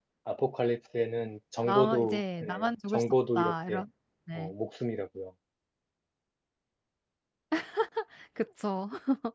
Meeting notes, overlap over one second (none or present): present